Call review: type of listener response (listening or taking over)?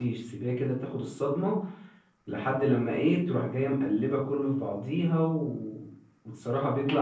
listening